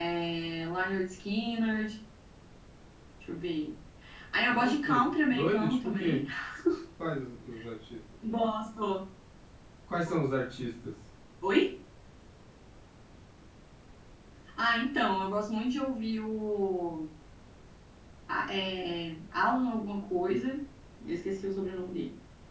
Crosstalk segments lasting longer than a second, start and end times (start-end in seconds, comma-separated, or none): 4.5-6.2